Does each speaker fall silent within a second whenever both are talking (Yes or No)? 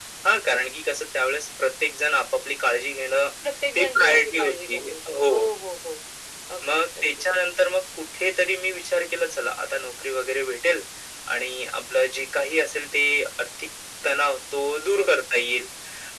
No